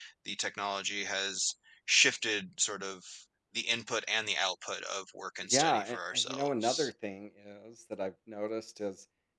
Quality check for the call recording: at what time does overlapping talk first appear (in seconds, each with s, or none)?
5.4 s